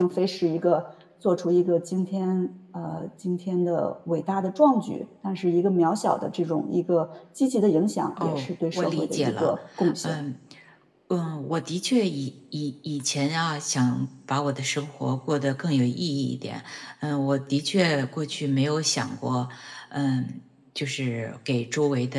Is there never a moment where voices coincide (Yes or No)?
No